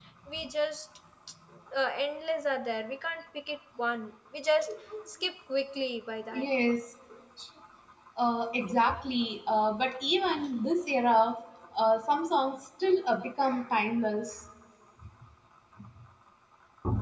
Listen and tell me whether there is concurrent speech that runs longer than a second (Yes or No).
No